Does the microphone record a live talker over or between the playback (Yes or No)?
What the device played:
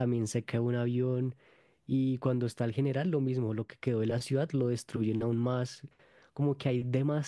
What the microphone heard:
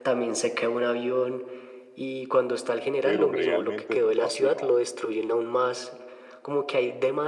Yes